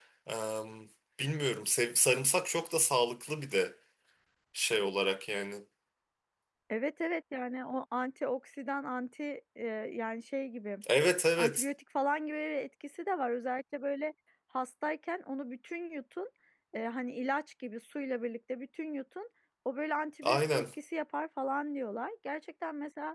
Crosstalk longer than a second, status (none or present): none